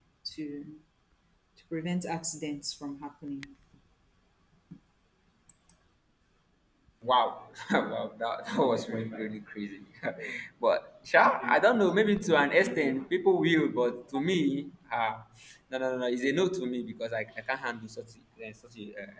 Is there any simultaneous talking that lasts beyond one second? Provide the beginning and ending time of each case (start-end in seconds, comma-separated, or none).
none